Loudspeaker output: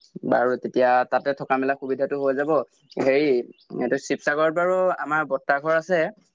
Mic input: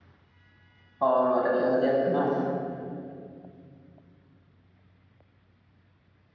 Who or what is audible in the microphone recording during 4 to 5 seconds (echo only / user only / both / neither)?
neither